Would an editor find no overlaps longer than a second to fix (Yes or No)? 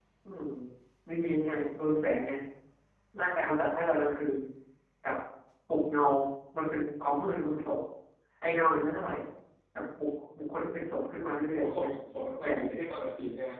Yes